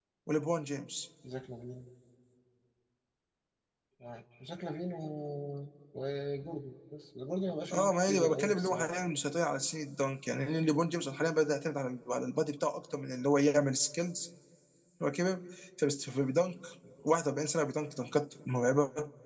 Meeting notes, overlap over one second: present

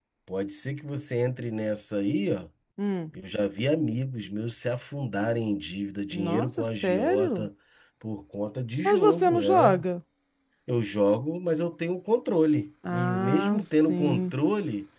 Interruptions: present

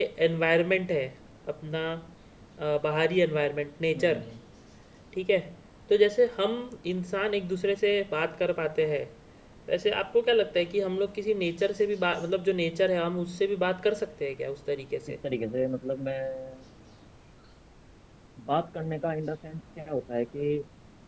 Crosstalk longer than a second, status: none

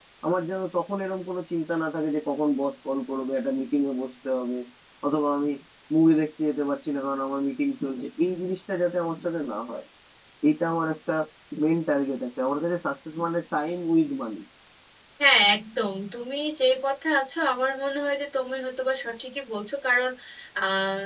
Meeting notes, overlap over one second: none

